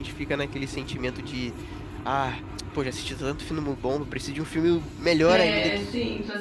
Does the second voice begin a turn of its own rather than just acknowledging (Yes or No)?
Yes